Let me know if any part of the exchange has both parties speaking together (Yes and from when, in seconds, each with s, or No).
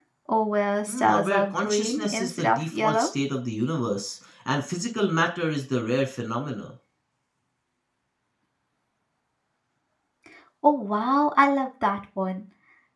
Yes, from 0.9 s